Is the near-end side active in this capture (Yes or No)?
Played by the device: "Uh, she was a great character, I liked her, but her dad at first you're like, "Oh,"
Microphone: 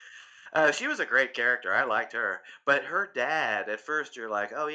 No